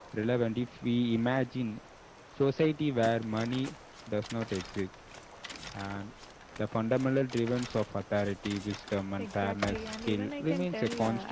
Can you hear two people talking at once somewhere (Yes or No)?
Yes